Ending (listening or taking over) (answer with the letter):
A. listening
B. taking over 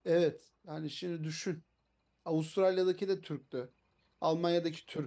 A